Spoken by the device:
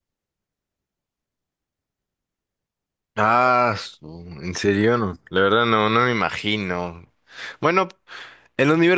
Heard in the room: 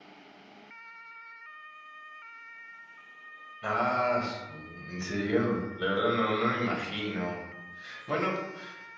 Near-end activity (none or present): none